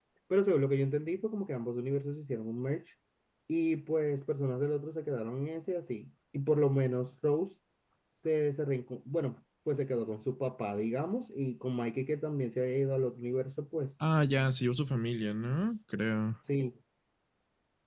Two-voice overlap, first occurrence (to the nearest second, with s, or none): none